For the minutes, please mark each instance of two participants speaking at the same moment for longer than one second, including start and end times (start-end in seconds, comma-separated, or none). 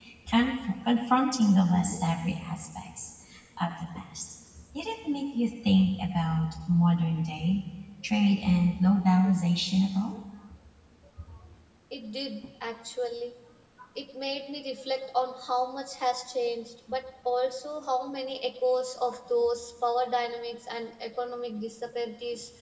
none